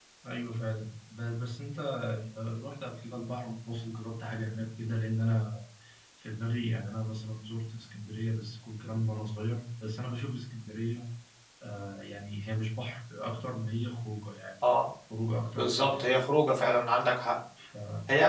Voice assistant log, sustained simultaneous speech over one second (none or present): none